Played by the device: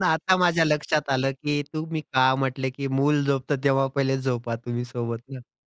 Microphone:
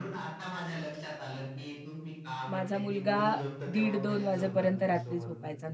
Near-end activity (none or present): present